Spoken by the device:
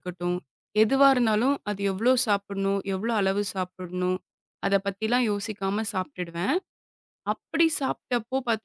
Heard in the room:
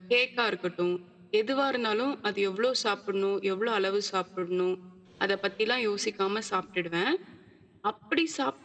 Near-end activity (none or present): none